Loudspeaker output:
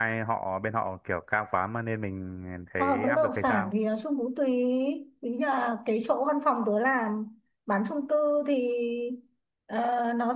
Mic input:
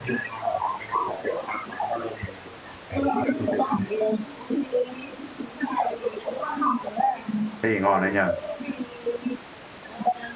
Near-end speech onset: 8 s

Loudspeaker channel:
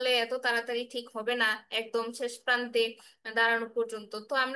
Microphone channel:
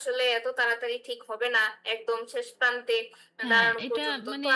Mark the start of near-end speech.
3 s

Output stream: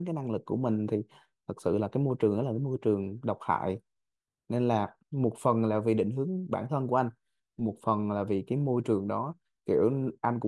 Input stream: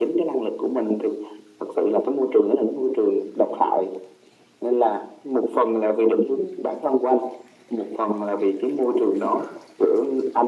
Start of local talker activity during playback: none

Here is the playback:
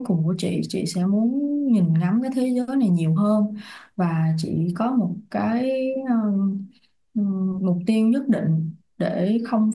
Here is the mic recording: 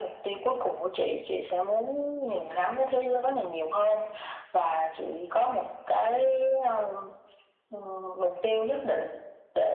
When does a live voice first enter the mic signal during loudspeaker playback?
none

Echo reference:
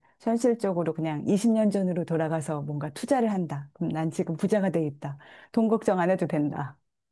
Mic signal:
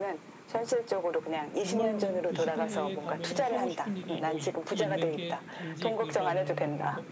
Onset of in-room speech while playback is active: 2 s

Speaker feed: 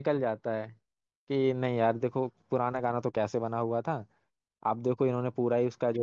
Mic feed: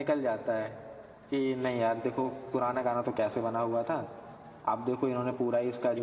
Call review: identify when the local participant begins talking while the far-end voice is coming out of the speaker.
none

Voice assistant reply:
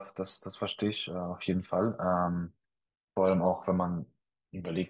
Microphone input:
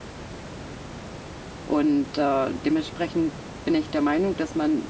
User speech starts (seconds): 2 s

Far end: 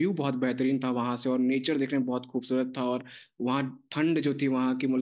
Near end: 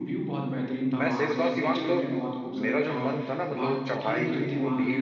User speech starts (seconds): 1 s

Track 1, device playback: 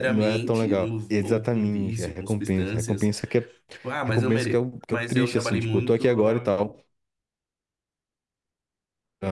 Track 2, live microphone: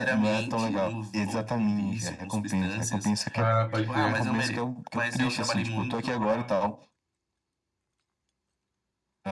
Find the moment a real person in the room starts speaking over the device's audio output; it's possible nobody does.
3 s

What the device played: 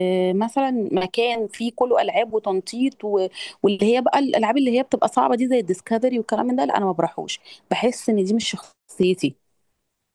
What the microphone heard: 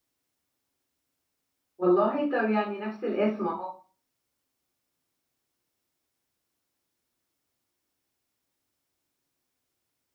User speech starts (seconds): 2 s

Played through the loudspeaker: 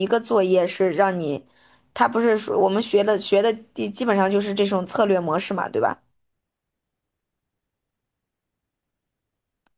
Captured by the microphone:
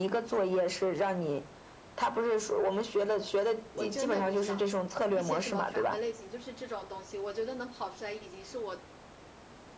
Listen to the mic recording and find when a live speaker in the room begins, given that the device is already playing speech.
4 s

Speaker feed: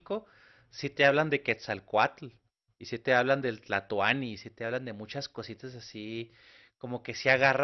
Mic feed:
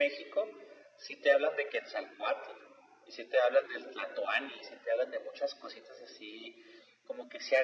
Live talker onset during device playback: none

